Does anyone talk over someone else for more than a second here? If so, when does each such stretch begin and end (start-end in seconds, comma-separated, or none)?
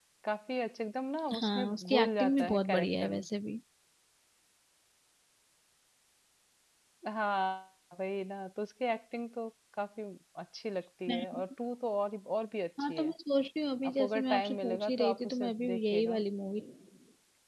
1.3-3.2, 14.0-16.2